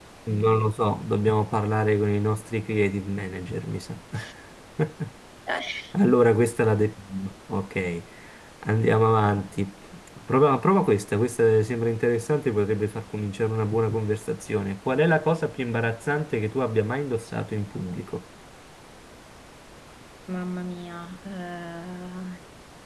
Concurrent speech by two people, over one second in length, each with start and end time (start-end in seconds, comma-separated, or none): none